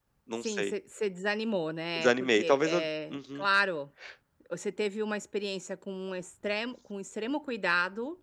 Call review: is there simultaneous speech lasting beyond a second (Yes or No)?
Yes